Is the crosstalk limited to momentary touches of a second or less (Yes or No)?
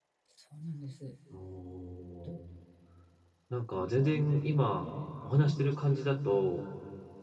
Yes